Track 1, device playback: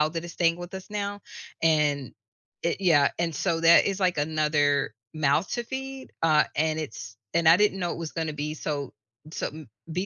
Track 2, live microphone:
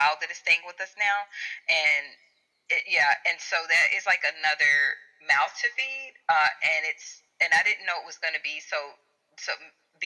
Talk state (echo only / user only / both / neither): echo only